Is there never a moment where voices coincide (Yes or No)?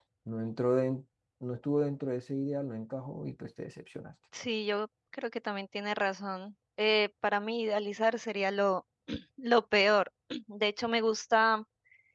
Yes